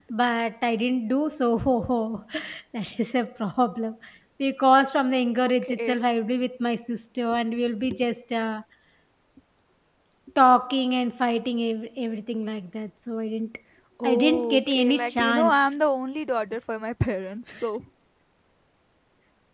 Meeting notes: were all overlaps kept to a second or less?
No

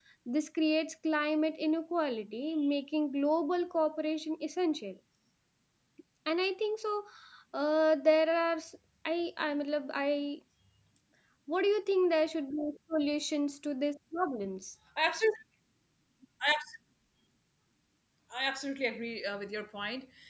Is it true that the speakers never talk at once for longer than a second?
Yes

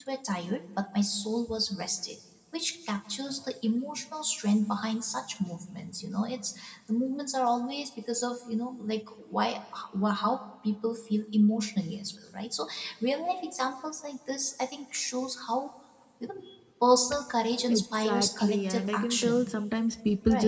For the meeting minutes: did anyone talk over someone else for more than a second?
Yes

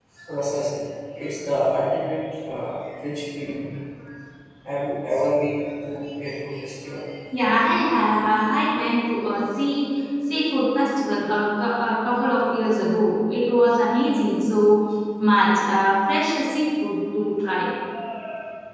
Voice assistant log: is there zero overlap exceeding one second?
Yes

